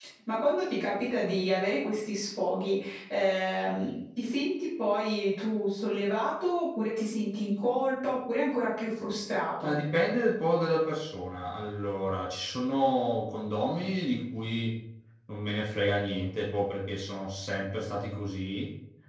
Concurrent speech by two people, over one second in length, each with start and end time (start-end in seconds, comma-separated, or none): none